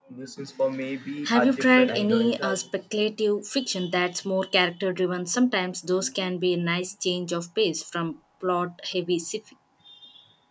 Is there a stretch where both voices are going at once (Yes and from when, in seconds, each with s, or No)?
Yes, from 1.3 s